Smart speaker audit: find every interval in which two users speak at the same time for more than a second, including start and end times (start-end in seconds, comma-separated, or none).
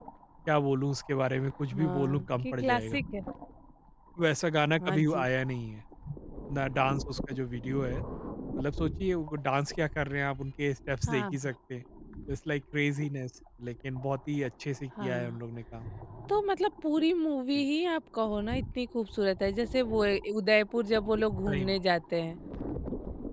1.8-3.0